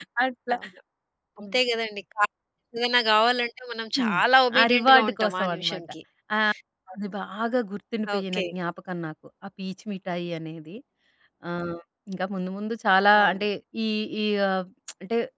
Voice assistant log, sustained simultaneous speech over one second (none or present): present